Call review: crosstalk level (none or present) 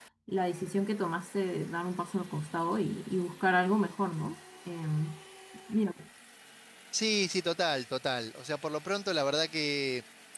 none